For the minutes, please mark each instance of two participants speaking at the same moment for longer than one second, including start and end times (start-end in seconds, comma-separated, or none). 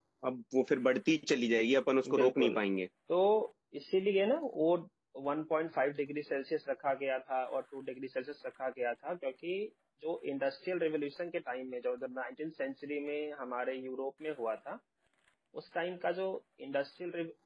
none